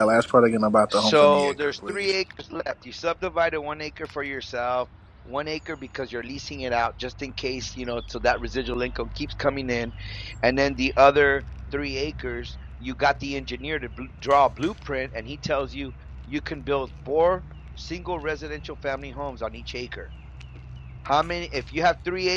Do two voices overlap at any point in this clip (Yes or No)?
Yes